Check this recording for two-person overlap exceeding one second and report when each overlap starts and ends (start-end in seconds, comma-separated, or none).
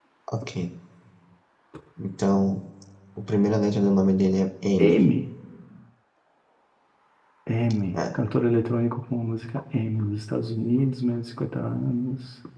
none